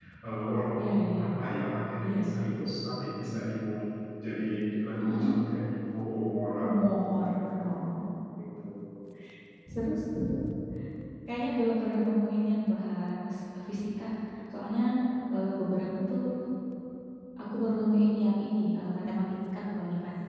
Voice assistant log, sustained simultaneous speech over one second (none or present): present